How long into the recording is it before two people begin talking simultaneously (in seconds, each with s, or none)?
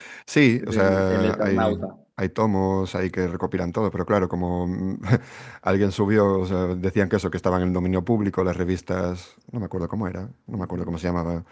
0.6 s